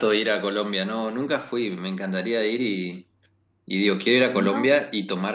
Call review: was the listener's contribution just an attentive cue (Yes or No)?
Yes